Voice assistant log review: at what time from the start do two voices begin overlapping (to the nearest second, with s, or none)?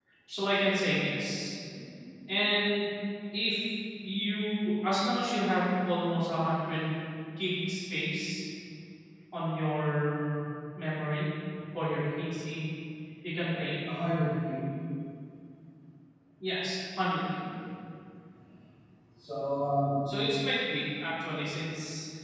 none